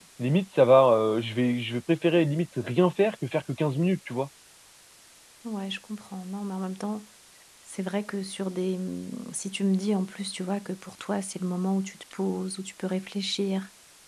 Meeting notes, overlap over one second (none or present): none